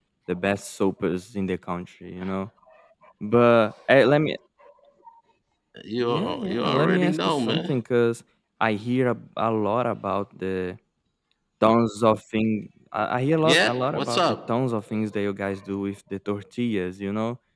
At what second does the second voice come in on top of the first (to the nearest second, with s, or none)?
6 s